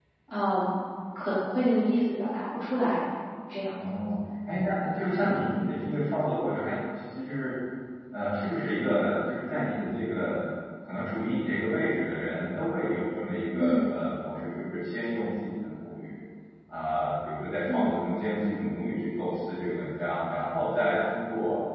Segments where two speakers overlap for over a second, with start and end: none

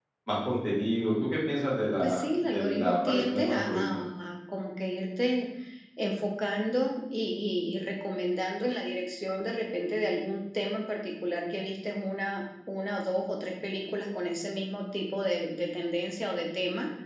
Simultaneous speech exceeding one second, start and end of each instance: 2.0-4.0

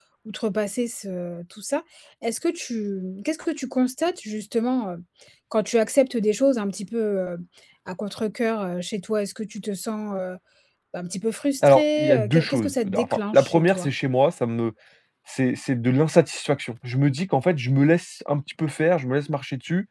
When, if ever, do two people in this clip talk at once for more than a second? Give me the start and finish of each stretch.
11.6-13.9

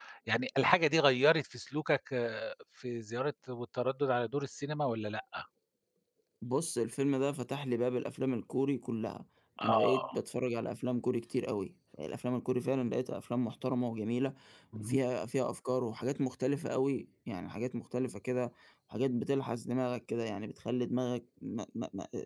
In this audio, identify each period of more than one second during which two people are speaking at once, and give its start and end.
none

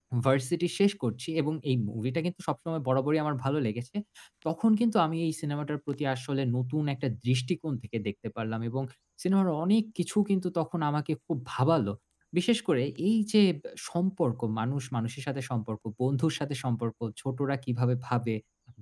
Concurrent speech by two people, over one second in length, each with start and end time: none

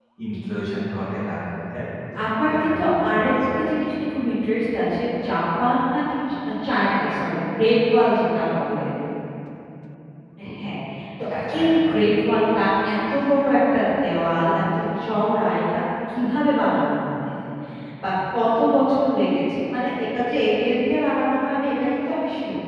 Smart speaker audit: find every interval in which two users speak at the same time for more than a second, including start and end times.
2.5-3.9

